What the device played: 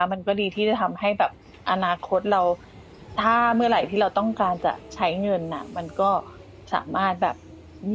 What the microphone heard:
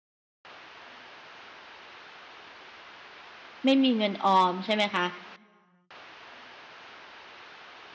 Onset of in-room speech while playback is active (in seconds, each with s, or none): 3.6 s